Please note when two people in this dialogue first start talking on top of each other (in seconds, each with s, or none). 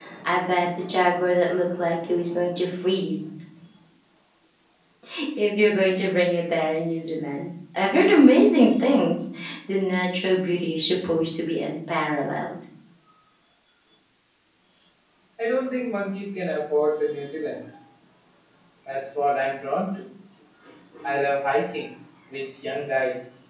none